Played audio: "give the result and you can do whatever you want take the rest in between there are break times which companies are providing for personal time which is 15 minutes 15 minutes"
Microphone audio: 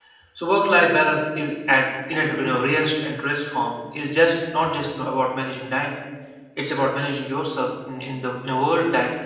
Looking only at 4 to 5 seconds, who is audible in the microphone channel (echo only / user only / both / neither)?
user only